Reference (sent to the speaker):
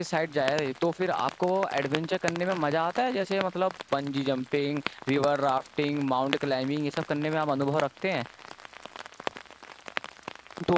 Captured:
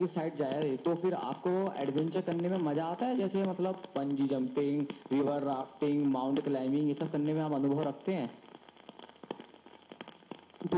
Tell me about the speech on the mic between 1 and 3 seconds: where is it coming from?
echo only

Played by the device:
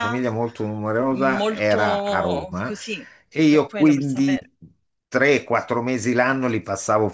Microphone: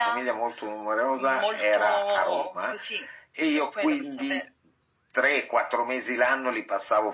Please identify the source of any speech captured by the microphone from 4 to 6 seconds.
echo only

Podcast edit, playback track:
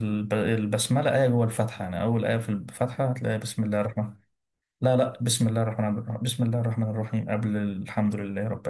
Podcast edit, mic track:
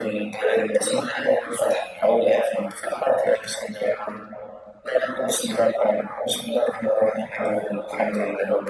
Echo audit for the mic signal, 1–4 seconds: echo only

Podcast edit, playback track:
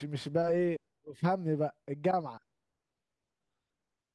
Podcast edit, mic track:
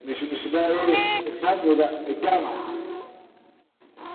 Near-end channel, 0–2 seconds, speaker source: echo only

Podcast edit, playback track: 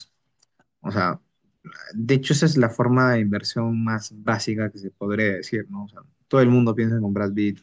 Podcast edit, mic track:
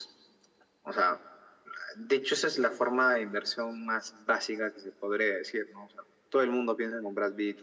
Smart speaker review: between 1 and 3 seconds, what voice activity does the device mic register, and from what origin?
echo only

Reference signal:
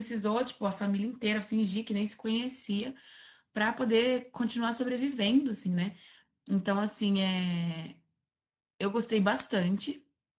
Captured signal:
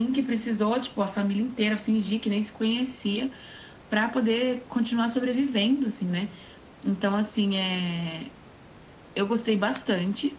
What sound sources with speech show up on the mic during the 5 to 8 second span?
echo only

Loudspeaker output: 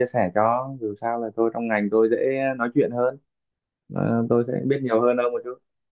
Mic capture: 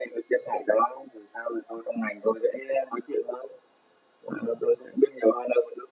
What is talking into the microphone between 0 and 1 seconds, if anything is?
echo only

